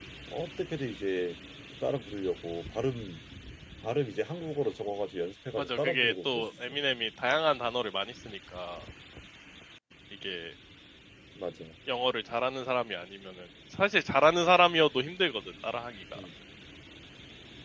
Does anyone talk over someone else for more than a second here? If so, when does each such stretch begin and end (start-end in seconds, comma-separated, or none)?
5.6-6.8